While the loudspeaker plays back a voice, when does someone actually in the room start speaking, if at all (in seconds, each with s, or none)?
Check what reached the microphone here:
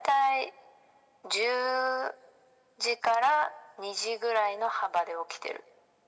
none